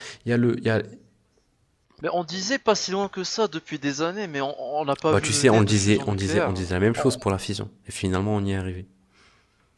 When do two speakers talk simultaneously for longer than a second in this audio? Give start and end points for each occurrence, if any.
5.1-6.5

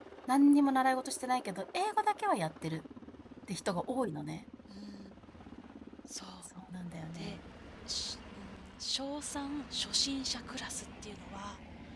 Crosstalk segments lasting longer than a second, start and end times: none

